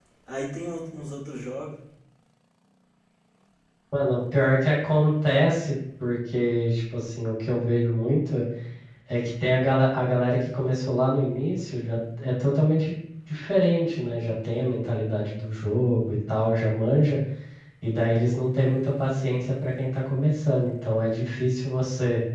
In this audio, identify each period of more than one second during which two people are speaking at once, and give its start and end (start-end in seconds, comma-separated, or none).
none